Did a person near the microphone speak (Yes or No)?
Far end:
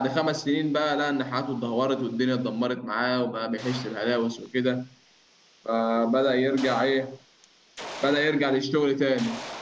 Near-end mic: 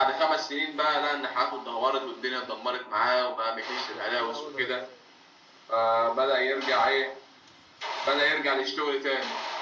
Yes